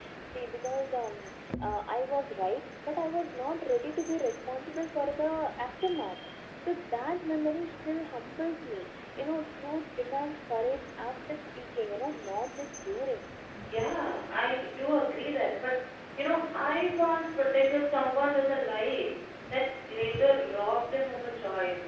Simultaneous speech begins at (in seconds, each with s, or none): none